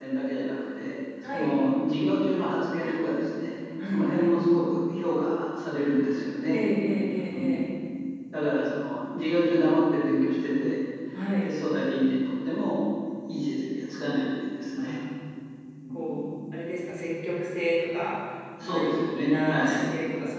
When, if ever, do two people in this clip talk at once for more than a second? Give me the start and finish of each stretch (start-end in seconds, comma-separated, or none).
18.6-19.8